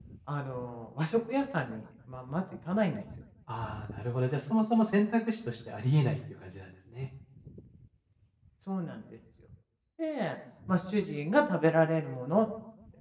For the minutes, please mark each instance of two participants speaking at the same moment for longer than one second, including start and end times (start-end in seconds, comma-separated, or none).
none